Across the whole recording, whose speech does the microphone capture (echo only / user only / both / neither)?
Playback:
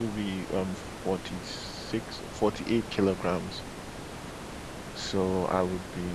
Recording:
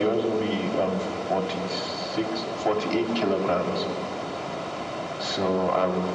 echo only